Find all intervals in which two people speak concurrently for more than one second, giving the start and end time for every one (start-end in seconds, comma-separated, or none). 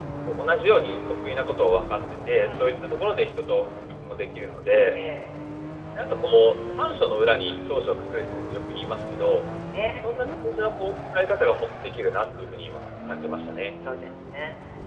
none